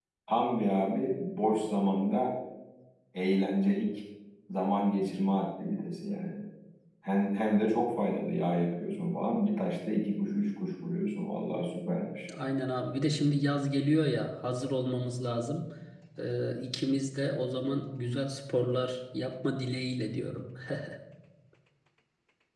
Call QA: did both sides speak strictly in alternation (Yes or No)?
Yes